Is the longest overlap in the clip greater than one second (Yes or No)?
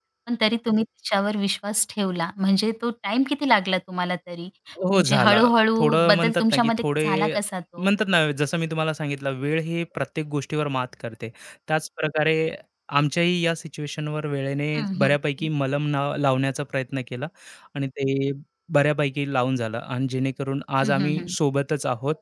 Yes